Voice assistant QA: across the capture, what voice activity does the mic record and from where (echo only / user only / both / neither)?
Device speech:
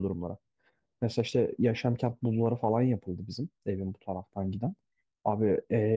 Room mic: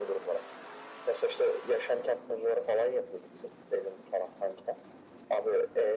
echo only